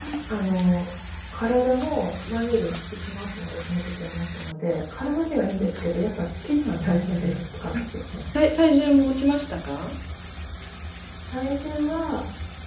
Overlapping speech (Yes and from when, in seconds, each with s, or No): No